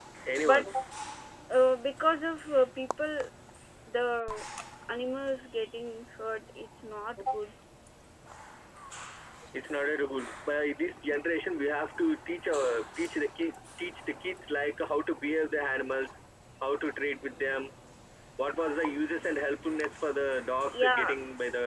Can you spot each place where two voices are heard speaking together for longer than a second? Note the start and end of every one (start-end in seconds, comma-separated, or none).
none